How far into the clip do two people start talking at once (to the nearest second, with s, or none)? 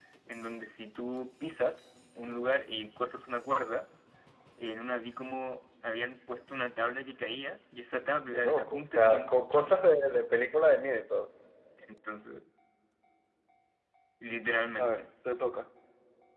8 s